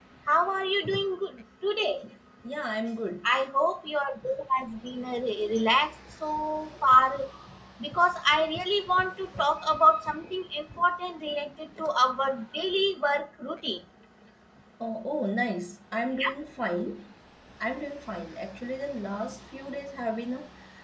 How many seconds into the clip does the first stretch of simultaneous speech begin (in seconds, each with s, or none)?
none